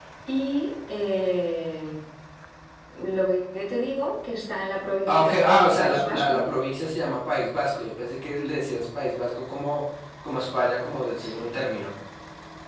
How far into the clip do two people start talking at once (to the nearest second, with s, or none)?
5 s